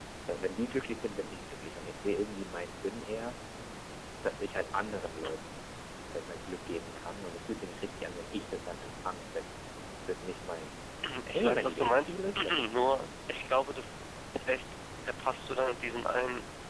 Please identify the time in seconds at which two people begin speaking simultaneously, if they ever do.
11.3 s

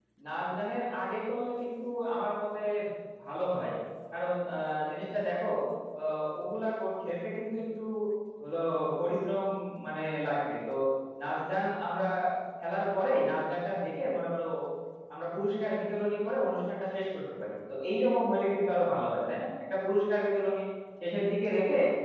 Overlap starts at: none

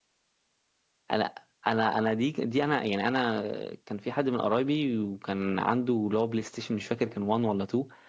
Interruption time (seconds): none

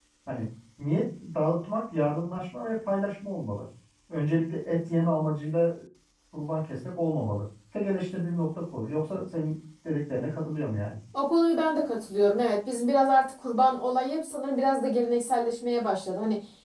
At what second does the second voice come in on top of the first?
none

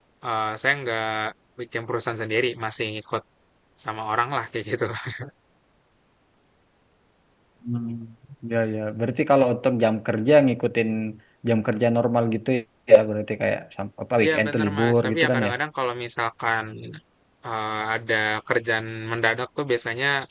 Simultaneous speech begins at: 14.2 s

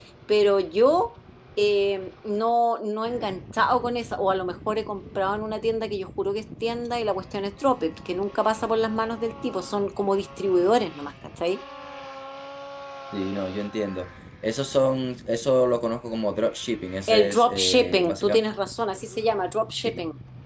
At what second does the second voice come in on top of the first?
17.1 s

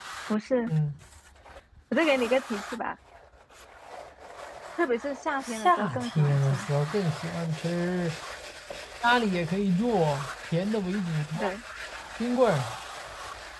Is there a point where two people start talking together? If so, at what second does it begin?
5.4 s

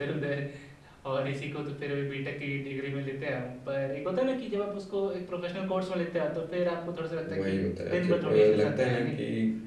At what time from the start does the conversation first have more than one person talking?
7.2 s

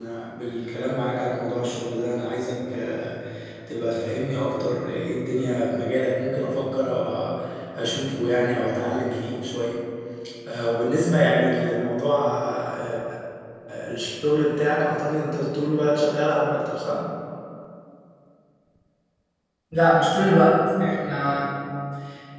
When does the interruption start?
none

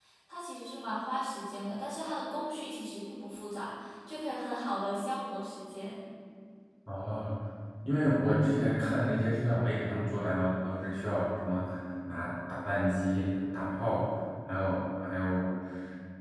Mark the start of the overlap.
none

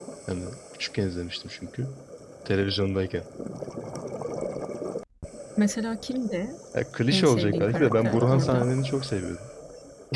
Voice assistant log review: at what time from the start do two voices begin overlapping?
7.1 s

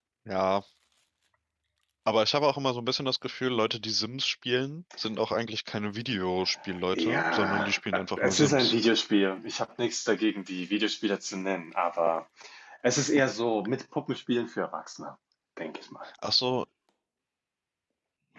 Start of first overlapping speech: 6.9 s

